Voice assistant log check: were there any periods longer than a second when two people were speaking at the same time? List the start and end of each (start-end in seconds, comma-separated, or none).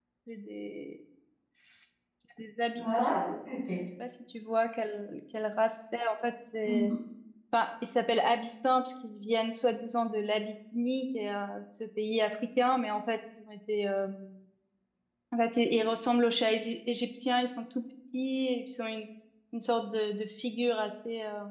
none